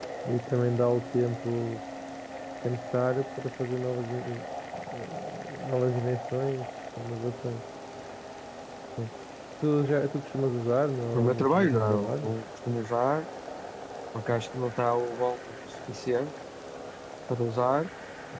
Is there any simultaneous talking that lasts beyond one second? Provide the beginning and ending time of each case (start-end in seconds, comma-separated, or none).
11.1-12.3